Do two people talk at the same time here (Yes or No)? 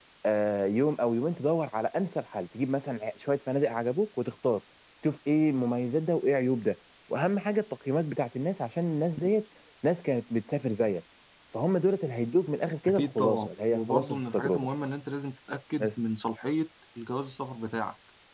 Yes